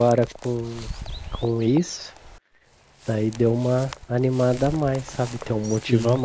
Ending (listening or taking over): listening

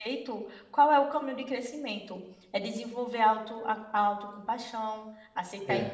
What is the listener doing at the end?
listening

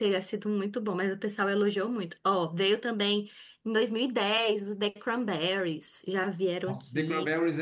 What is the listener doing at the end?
taking over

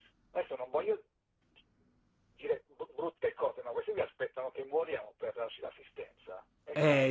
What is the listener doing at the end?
taking over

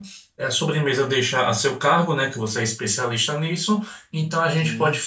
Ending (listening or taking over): listening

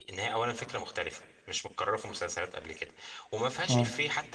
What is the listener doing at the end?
listening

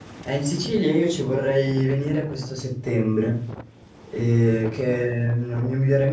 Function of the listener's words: listening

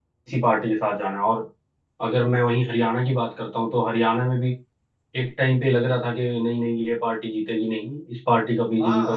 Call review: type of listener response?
taking over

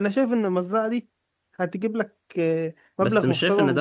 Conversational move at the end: taking over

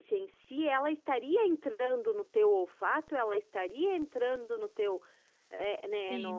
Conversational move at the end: taking over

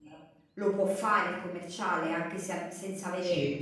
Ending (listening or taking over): taking over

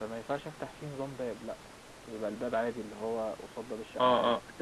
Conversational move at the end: taking over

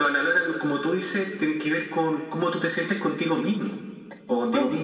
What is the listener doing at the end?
taking over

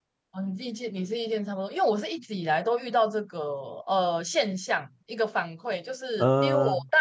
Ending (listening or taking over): listening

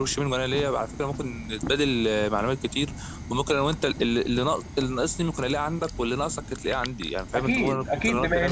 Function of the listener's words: taking over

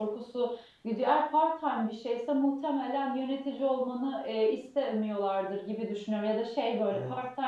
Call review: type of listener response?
listening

